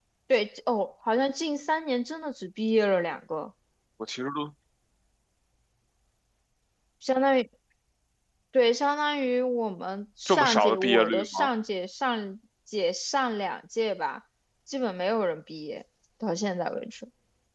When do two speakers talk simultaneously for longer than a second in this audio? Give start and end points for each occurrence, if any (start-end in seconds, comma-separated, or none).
10.3-11.5